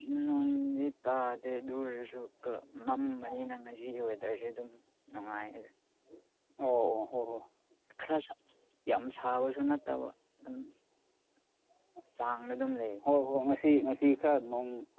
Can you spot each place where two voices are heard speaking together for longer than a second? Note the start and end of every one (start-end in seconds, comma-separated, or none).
none